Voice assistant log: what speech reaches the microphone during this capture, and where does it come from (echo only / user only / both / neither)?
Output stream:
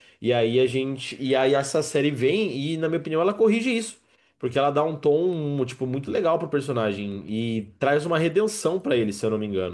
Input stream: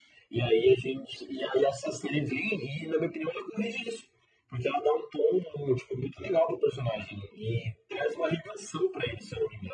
echo only